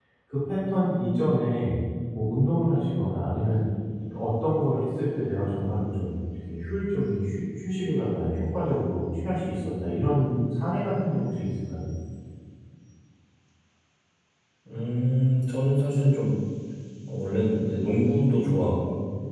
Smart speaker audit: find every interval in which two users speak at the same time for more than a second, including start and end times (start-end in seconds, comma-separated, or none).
none